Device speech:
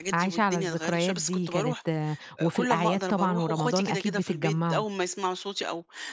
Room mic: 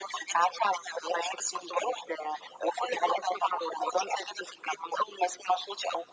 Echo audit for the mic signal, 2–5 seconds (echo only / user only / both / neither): echo only